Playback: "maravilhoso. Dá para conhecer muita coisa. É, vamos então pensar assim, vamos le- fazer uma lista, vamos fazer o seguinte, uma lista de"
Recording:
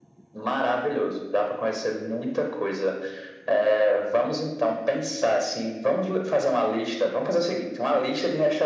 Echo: present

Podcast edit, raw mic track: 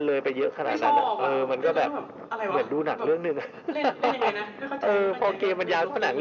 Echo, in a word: present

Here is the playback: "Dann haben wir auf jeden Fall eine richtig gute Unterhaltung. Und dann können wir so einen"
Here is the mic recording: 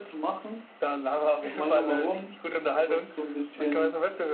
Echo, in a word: present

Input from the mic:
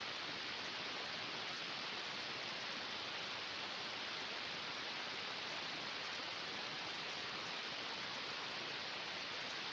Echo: none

